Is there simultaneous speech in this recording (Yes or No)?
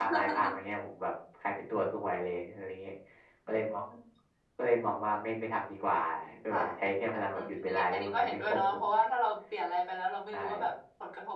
Yes